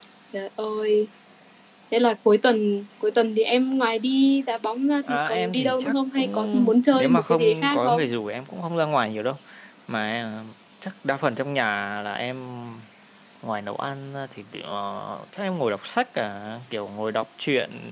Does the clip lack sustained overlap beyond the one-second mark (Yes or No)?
No